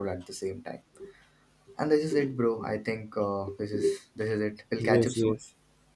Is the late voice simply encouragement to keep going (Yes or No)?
No